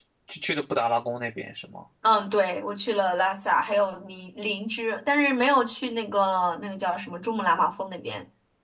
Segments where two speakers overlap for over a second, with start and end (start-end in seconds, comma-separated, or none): none